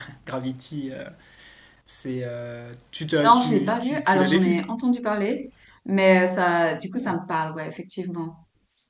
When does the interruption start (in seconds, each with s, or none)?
3.2 s